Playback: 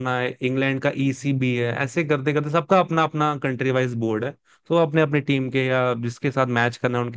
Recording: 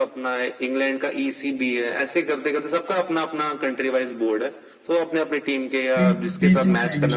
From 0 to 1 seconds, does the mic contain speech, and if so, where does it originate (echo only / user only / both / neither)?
echo only